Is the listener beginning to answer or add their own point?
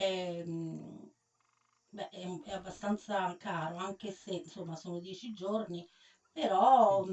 No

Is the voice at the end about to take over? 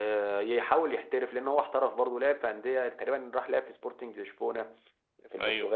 No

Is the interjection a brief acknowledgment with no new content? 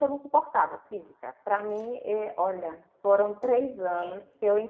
Yes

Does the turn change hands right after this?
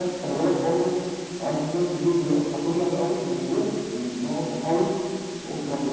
No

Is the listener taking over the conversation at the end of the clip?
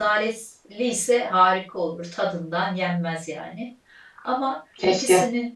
No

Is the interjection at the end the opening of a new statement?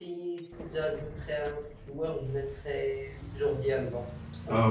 Yes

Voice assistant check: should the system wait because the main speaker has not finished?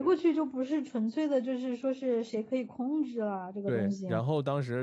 No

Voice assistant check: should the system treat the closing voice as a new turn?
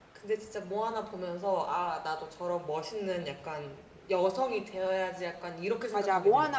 Yes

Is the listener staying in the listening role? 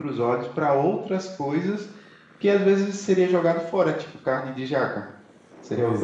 Yes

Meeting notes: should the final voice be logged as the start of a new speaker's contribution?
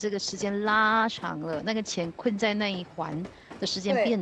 Yes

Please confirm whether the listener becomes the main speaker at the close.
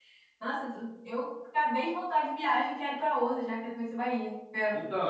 Yes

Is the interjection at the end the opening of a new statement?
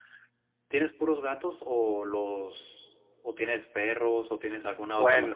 No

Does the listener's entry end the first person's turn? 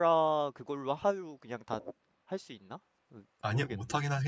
Yes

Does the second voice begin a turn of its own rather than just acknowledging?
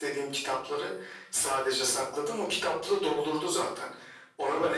No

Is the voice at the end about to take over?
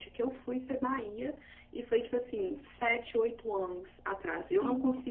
No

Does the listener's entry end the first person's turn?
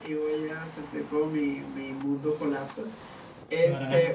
No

